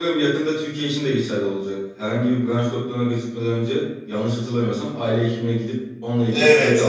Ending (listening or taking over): taking over